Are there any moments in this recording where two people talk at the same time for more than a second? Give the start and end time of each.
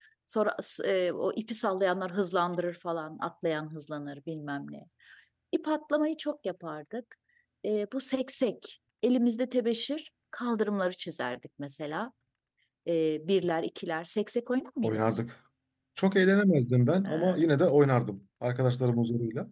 none

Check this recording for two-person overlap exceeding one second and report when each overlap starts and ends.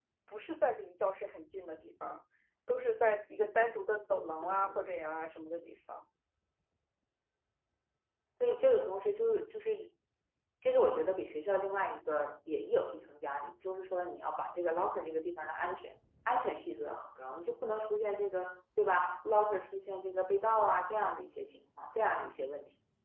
none

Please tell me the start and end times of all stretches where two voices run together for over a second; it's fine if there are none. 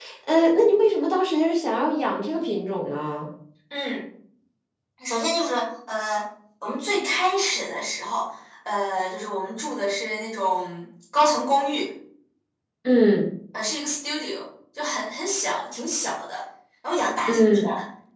none

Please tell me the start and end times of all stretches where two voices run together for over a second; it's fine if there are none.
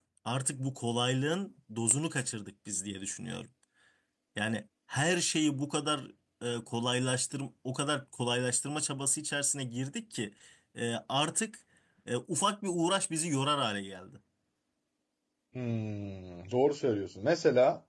none

